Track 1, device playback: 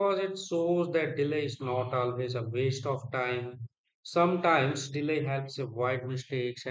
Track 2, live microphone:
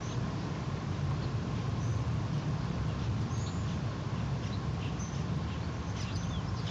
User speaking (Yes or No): No